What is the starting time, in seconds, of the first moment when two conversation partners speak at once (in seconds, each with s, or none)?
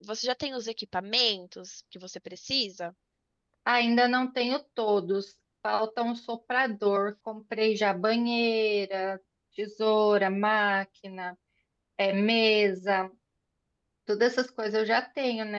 none